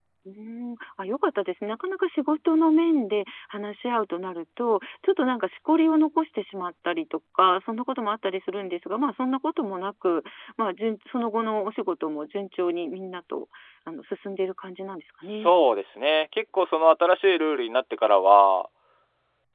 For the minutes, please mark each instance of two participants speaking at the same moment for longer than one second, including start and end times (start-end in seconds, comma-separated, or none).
none